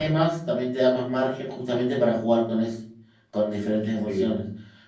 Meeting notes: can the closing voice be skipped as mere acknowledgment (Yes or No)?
Yes